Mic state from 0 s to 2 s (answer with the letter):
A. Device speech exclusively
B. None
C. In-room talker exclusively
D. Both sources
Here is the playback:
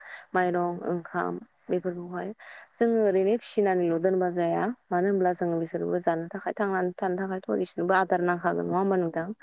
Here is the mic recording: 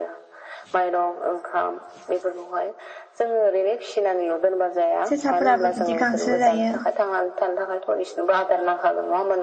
A